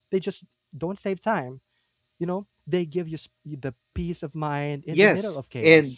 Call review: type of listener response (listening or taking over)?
taking over